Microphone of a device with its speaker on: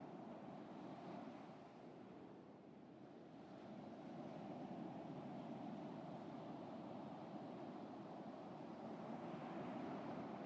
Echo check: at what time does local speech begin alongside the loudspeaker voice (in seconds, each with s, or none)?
none